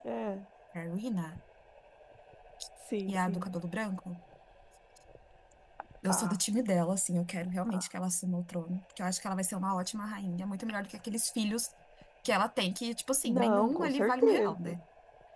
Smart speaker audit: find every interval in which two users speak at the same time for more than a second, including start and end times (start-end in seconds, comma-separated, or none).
13.2-14.8